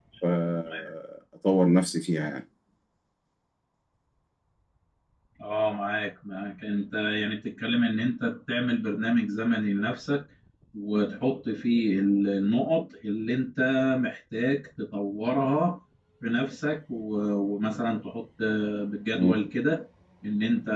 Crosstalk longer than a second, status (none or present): none